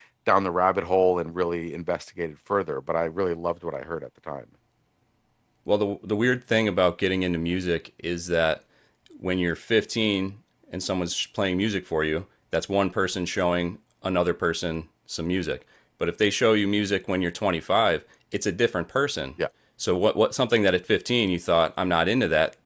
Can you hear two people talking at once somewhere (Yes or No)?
No